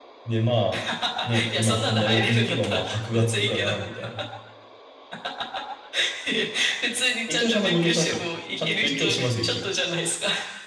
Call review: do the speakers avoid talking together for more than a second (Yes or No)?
No